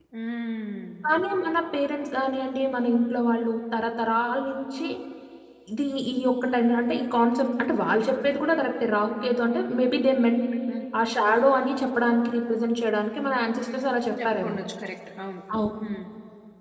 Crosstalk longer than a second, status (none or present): none